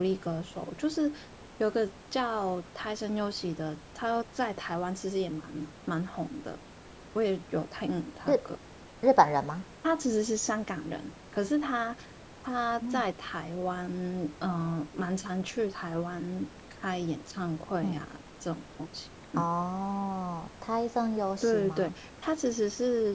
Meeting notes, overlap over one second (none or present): none